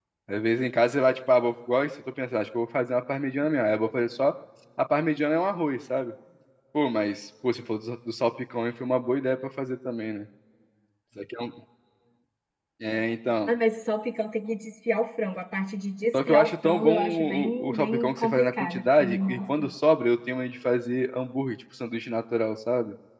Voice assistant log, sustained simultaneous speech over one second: present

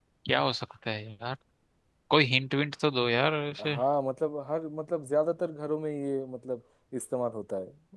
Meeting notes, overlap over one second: none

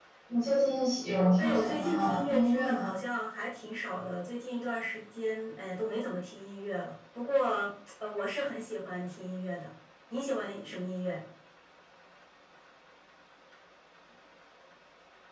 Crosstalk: present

